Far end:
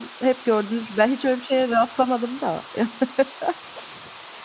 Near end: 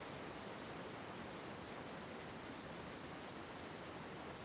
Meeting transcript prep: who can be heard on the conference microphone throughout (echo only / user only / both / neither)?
neither